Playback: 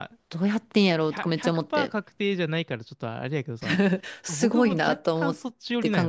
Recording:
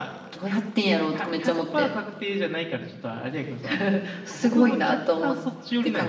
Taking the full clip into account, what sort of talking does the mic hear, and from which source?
echo only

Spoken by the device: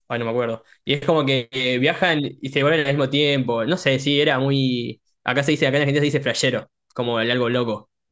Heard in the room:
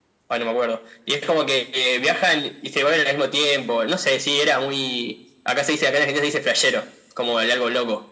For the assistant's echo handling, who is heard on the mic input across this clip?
echo only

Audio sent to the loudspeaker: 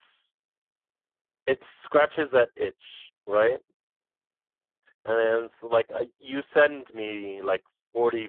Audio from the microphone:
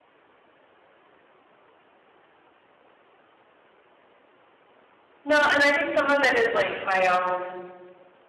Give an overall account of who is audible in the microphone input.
user only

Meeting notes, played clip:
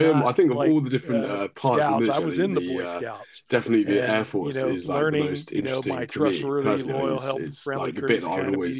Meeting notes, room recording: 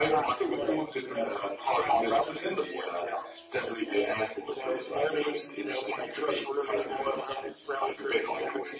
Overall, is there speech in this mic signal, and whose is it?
echo only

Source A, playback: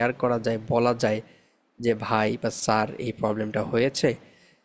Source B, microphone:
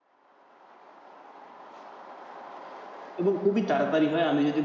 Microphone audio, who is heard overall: user only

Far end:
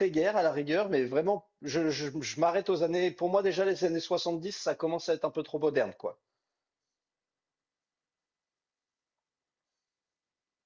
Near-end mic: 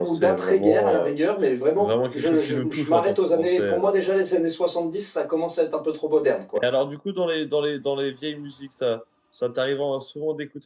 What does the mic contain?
both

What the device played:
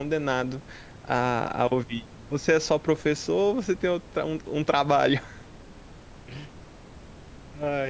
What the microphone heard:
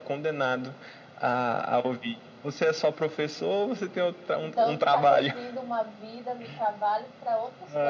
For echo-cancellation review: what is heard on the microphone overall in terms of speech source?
both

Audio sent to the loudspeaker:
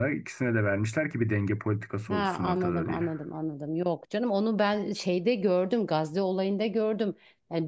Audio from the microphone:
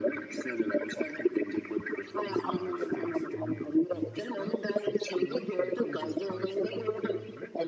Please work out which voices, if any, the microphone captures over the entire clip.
both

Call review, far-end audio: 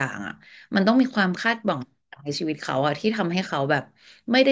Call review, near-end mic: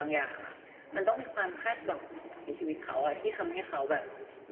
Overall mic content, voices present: echo only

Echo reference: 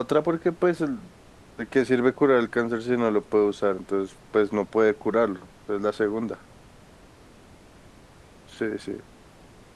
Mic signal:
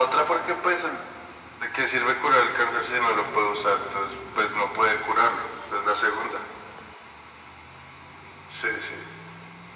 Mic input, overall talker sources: echo only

